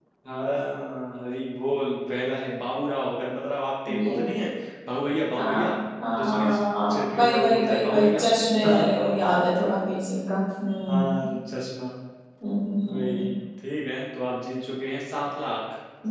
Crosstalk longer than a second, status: present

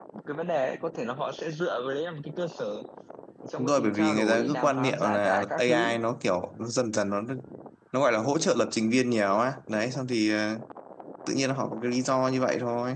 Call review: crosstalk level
present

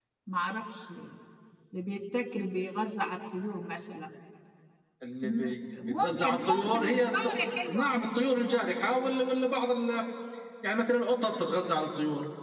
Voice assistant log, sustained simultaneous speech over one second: present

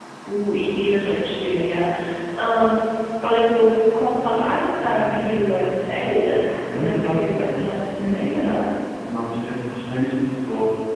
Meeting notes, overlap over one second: present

